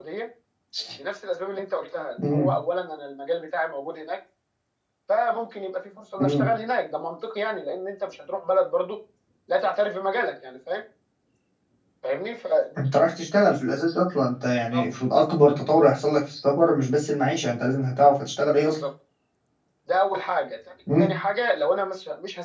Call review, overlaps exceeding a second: none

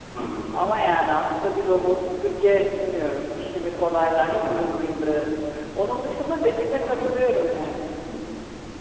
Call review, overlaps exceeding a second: none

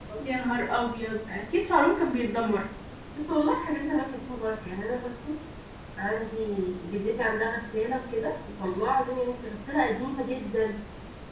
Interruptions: none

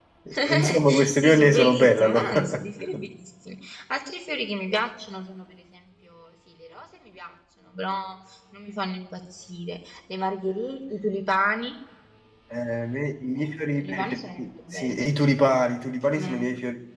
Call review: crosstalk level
present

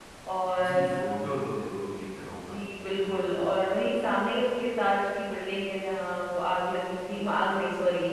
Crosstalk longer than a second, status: none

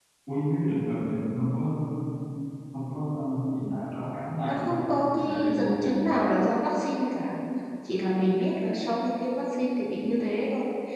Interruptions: present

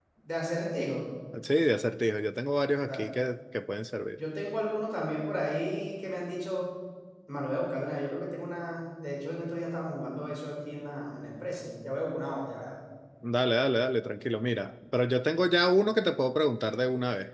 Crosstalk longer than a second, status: none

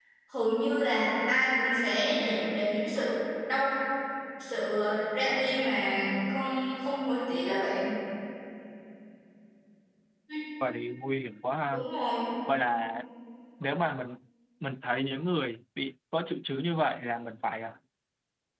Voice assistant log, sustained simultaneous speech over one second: none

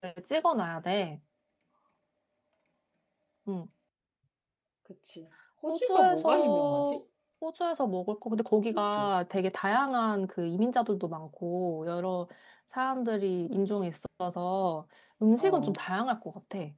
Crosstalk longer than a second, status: present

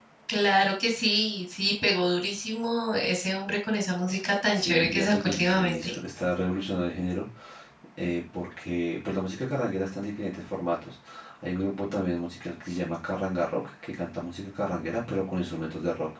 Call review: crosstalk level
present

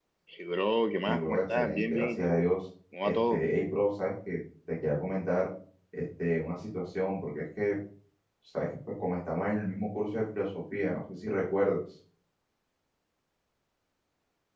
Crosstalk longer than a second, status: present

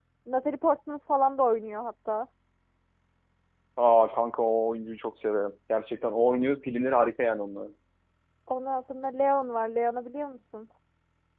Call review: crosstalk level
none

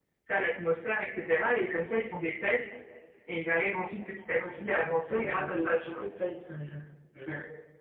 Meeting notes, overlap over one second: present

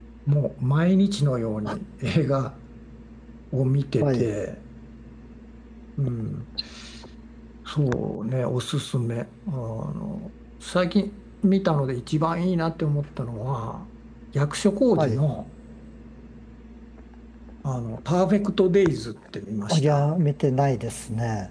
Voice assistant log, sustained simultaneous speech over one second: none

